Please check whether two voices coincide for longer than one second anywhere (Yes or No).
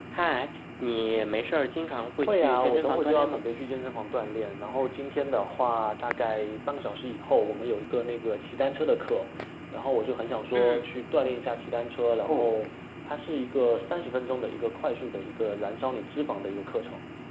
Yes